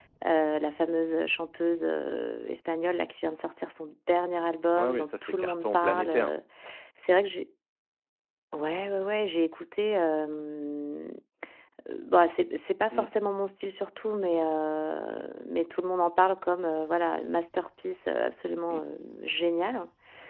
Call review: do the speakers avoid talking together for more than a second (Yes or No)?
No